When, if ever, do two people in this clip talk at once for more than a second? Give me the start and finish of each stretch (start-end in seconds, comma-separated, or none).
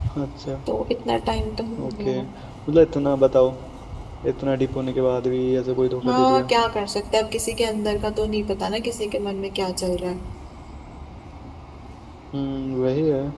none